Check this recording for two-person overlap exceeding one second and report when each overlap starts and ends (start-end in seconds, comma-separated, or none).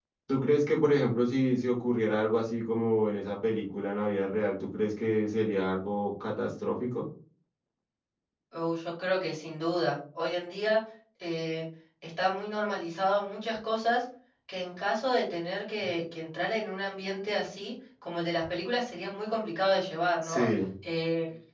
none